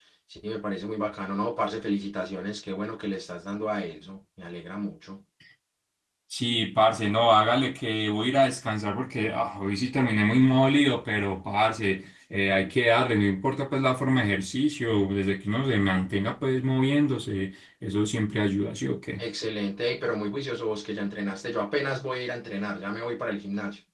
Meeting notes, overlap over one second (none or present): none